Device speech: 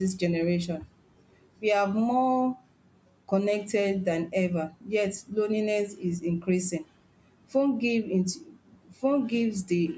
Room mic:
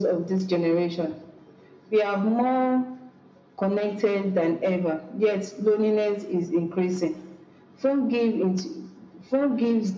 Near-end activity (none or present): none